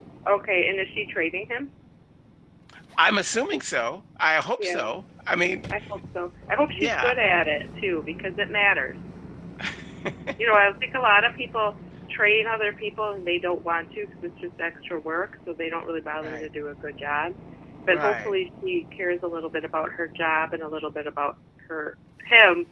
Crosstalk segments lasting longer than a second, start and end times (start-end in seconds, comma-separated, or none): none